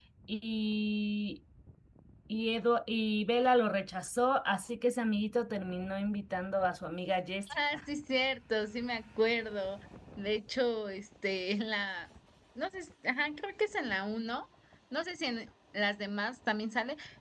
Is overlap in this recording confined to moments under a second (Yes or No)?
Yes